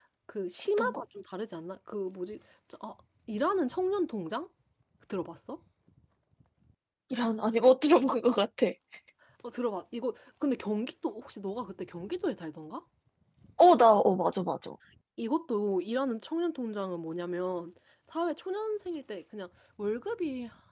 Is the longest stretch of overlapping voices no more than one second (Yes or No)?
Yes